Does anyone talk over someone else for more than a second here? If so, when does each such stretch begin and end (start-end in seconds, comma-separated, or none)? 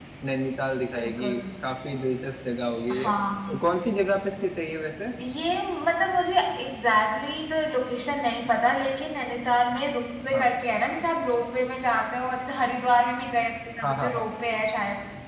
none